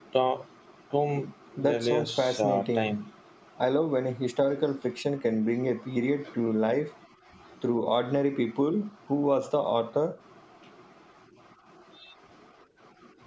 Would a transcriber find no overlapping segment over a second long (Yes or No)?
No